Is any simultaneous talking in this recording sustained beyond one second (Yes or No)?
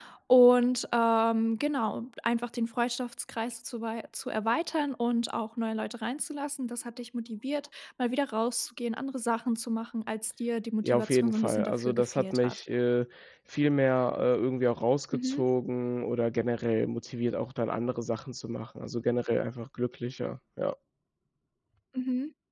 Yes